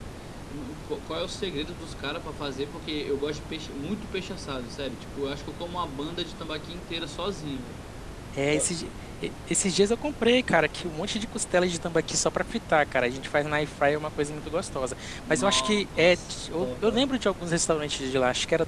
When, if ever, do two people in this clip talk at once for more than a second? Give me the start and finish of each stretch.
15.3-17.1

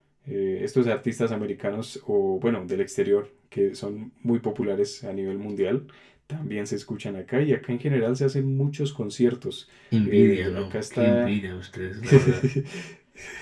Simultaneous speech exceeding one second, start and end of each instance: 10.1-11.3

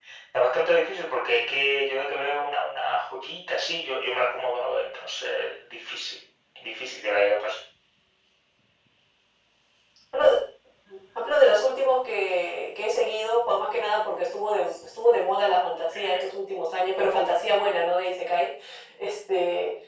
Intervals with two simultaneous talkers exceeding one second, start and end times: none

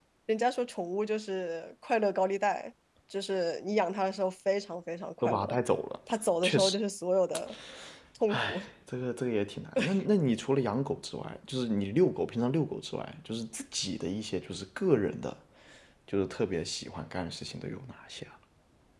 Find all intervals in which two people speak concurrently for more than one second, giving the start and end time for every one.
none

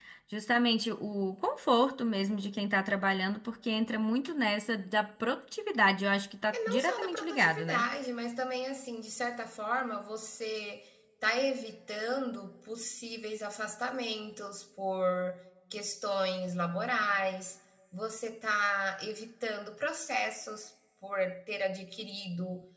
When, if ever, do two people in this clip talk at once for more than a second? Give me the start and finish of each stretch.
6.5-7.9

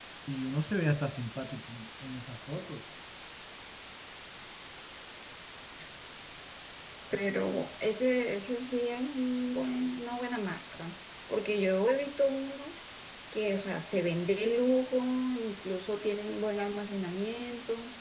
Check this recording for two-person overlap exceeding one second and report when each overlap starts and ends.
none

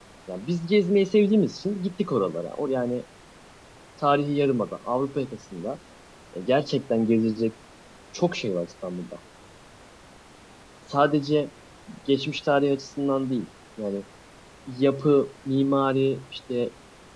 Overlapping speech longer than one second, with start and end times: none

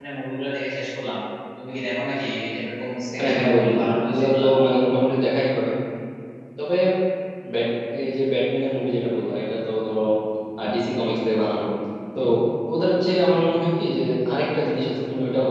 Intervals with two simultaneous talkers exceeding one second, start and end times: 3.2-4.4

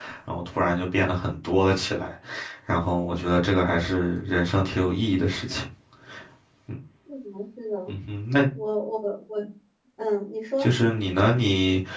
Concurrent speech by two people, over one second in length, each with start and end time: none

